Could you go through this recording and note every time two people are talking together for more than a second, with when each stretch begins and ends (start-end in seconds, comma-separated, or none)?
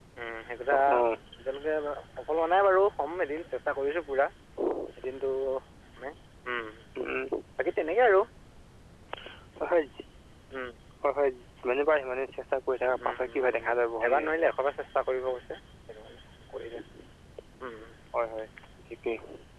12.9-14.3